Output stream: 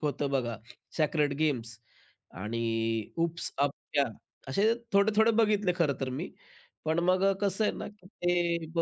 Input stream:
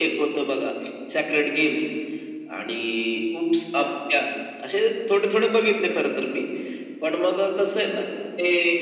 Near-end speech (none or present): none